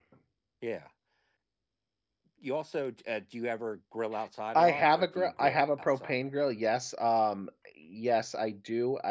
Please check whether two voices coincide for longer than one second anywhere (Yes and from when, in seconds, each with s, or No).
Yes, from 4.5 s